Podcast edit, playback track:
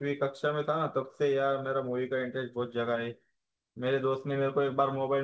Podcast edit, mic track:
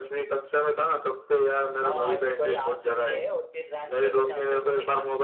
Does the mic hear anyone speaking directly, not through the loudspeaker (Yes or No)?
Yes